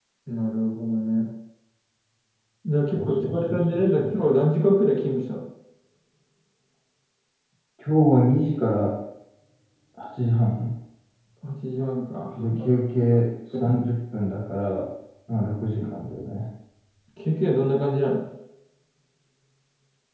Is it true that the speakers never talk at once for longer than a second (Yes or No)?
No